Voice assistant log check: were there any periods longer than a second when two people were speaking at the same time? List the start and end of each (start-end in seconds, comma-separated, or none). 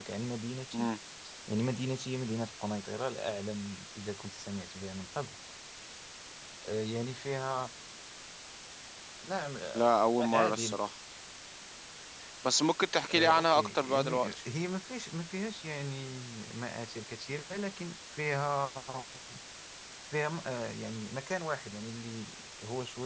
13.1-14.3